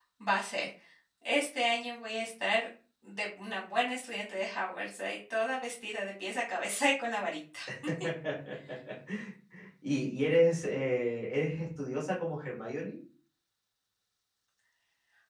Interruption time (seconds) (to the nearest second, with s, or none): none